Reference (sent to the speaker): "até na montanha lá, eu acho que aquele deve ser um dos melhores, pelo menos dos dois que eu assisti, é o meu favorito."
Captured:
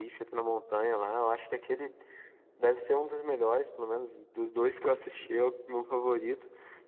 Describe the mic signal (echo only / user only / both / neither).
echo only